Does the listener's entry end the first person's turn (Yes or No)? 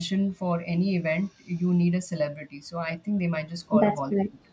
Yes